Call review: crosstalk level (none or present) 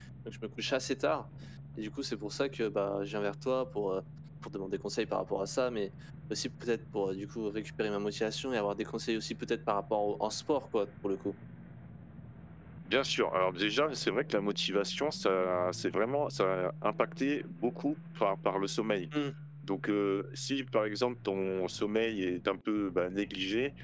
none